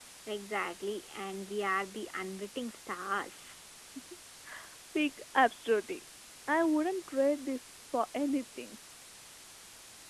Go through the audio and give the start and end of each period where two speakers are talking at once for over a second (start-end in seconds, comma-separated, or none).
none